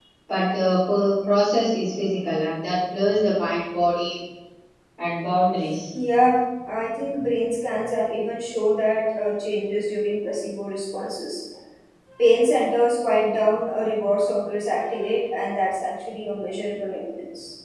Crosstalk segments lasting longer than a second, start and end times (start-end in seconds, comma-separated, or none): none